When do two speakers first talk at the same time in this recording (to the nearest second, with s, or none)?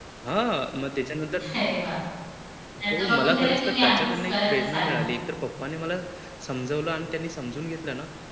3 s